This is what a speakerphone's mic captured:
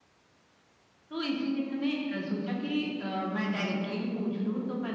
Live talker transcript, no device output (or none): none